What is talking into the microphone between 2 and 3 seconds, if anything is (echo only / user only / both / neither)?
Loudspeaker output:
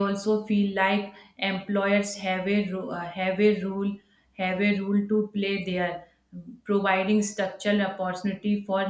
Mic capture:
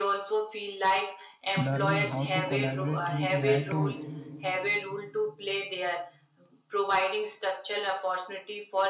both